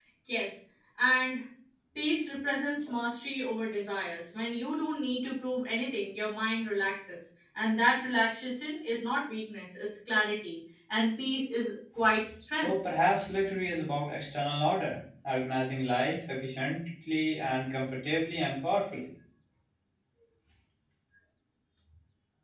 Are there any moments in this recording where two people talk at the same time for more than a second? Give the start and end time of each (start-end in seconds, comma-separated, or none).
none